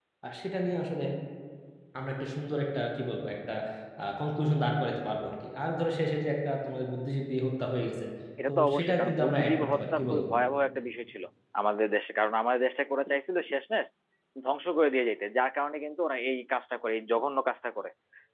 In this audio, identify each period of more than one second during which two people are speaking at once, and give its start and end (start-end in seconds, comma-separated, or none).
8.5-10.2